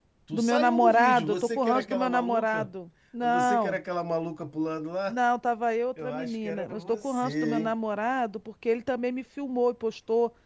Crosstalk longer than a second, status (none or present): present